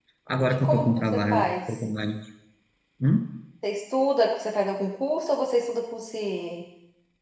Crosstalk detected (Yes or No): Yes